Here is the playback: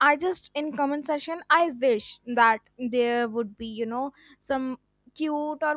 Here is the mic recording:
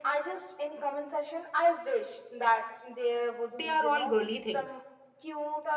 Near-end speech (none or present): present